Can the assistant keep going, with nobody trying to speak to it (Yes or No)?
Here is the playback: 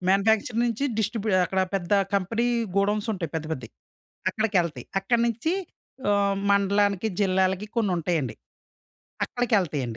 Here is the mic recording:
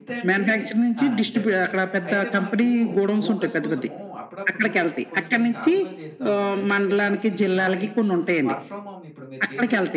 No